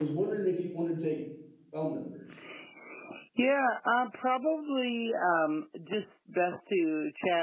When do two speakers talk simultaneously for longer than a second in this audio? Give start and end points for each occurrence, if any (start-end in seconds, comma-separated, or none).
none